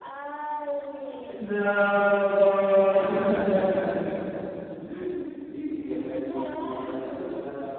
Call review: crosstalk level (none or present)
present